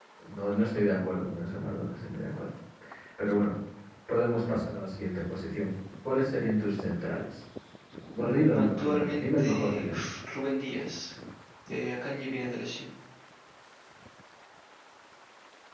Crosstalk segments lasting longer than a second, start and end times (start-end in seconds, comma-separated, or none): 8.2-10.0